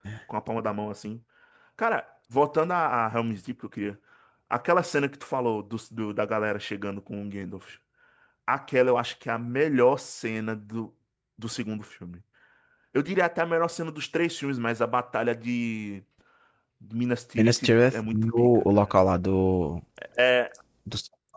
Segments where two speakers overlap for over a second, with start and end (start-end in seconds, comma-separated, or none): 17.4-18.9